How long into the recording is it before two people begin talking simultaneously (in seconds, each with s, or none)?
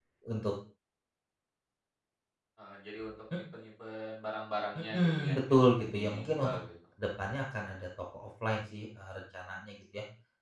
4.9 s